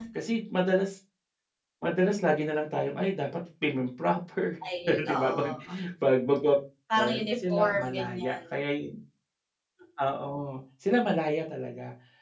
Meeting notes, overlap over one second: present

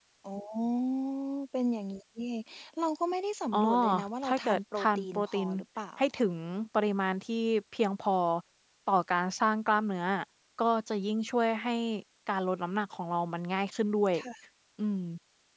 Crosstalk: present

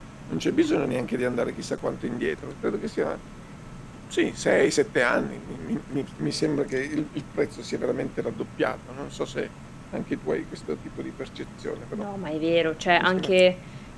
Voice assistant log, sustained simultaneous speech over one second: none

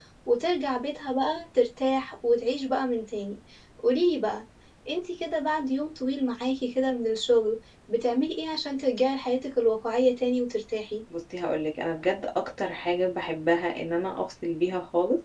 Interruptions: none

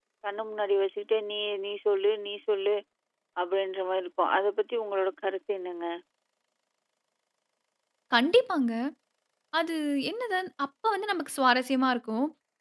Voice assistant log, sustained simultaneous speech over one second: none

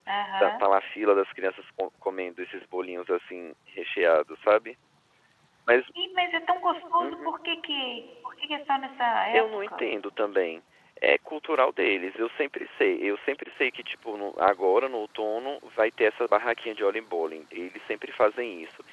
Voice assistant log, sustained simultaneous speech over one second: none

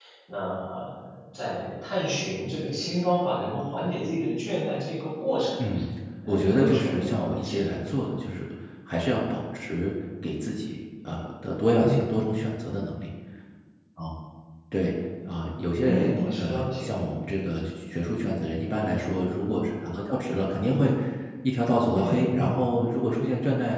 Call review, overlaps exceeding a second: present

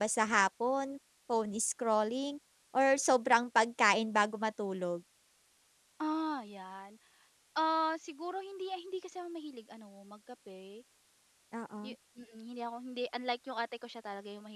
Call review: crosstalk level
none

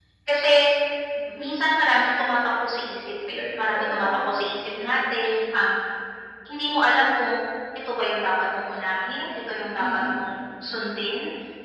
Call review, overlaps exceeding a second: present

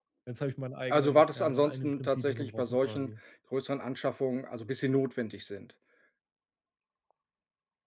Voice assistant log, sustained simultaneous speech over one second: present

